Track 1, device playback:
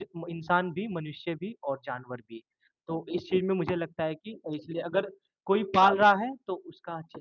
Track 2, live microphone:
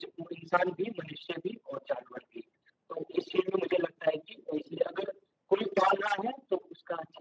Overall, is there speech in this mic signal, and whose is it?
echo only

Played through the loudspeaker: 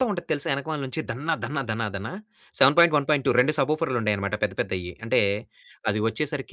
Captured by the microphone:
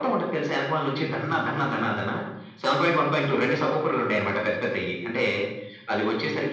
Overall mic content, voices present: echo only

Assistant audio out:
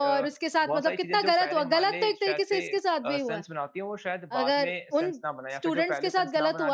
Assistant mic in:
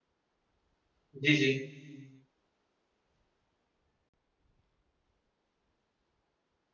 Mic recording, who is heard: user only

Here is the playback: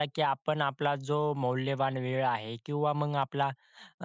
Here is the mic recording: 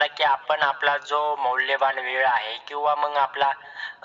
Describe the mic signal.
echo only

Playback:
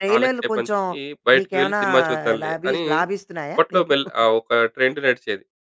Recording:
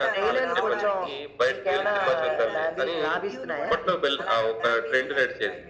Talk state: both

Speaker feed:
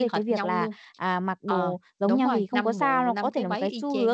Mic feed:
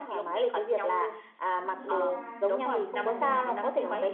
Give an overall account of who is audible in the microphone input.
both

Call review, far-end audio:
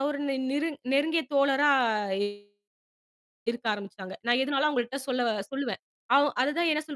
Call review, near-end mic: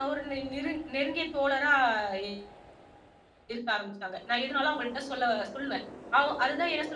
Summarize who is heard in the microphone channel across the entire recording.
echo only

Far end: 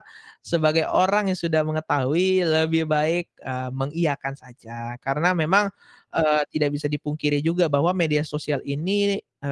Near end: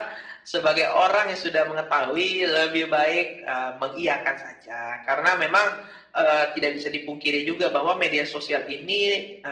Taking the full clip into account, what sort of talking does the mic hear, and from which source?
echo only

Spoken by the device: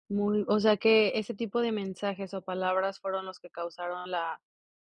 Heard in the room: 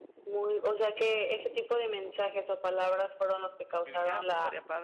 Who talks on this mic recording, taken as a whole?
both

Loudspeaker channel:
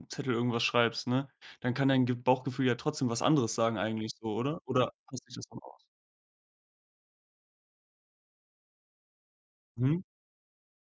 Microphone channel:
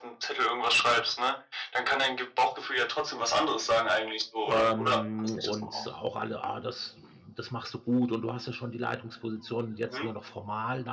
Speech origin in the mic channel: both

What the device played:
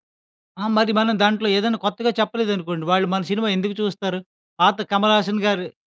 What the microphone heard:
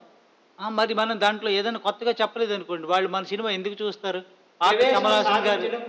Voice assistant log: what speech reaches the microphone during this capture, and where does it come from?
both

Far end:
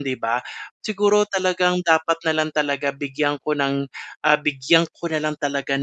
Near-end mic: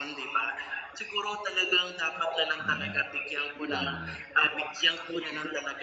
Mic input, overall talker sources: both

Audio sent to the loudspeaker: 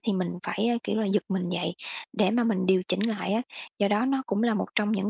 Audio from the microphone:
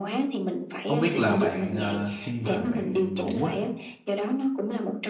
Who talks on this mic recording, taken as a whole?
both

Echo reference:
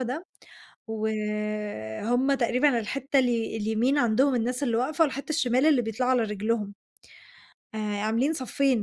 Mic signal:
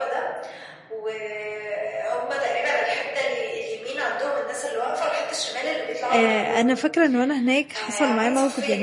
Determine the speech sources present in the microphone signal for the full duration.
both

